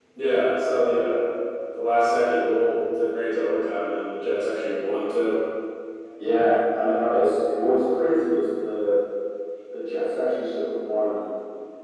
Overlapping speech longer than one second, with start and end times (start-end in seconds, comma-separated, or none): none